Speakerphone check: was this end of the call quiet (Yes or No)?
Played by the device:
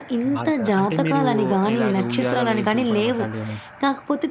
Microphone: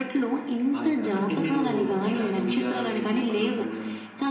Yes